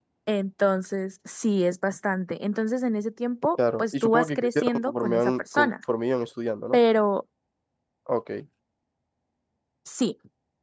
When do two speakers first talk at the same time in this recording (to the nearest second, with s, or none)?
4 s